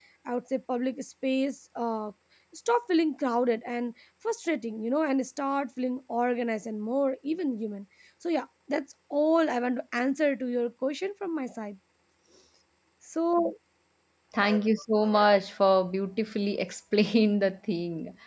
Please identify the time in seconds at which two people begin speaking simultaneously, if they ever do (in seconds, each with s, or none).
none